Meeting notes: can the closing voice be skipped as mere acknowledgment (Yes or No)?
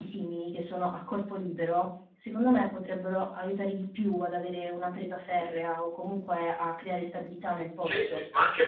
No